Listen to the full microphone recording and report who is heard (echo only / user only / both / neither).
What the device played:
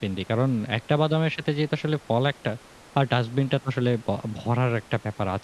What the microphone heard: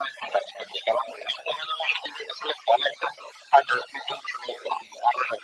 echo only